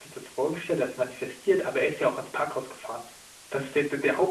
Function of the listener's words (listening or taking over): listening